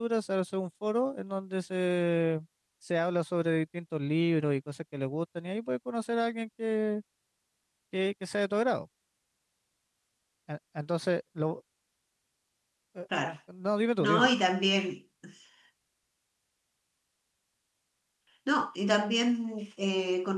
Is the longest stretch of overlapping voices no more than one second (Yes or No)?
Yes